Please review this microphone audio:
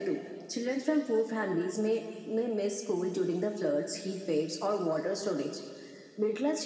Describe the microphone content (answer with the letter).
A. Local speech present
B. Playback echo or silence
B